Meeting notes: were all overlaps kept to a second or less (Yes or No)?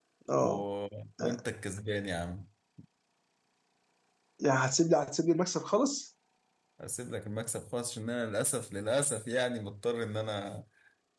Yes